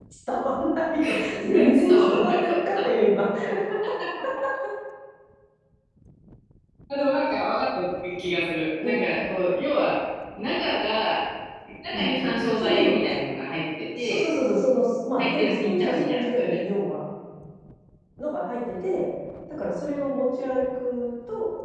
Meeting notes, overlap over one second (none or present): present